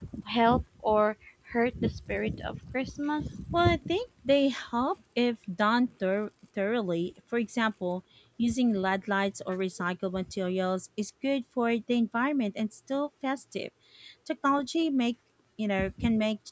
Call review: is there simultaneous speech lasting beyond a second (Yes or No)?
No